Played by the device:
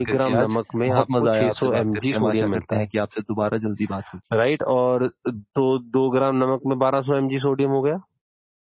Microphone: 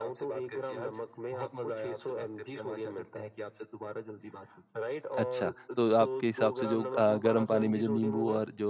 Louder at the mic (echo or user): user